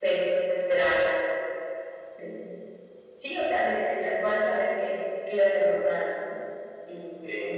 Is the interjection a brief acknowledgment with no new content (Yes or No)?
Yes